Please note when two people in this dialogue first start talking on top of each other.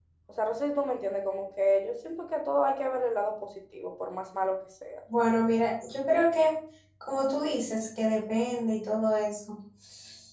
none

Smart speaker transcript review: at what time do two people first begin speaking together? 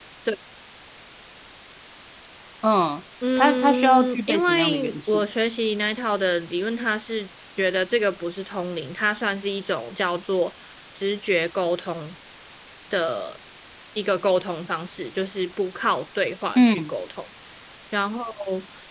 3.4 s

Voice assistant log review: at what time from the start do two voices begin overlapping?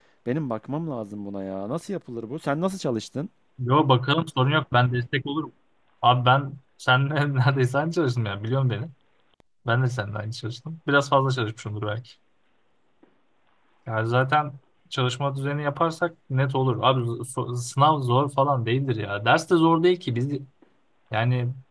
none

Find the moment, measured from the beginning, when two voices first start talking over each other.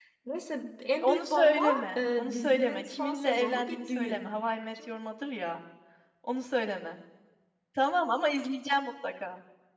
1.0 s

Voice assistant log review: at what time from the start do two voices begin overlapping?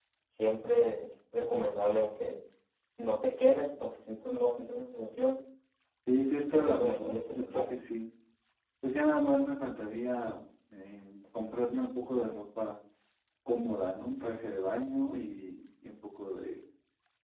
6.5 s

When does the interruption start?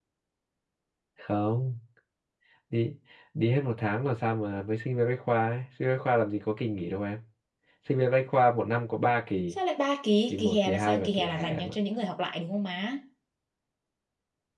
10.3 s

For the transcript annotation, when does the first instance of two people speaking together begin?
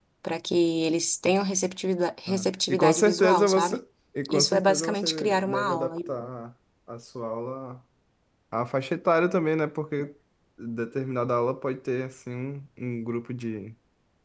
2.3 s

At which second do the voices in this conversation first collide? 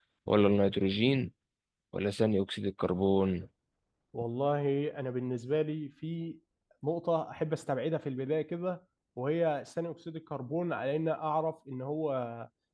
none

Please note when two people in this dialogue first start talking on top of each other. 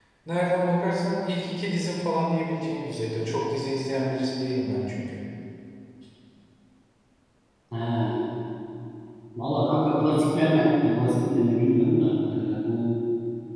none

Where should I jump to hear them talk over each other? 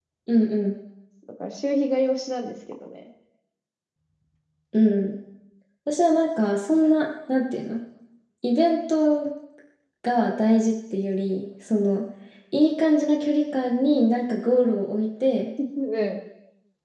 none

